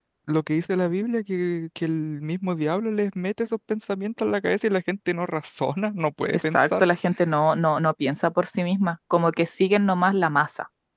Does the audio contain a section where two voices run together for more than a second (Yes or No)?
No